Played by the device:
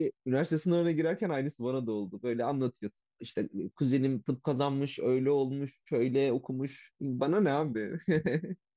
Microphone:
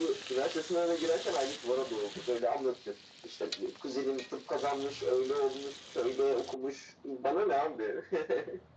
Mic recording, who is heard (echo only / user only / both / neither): echo only